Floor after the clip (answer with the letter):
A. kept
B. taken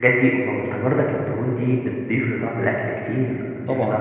B